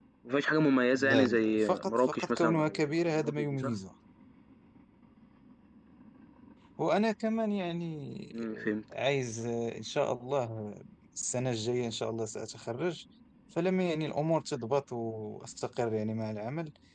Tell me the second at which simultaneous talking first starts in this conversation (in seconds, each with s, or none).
1.0 s